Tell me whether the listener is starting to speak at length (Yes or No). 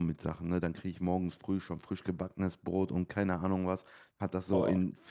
No